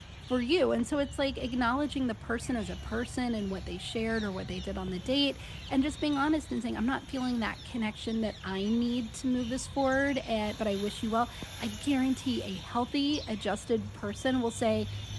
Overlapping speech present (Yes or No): No